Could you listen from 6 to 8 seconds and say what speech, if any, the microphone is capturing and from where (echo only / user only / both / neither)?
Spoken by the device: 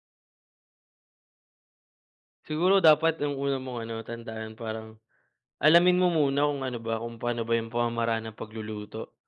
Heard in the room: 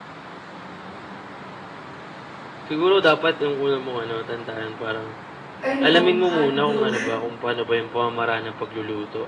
both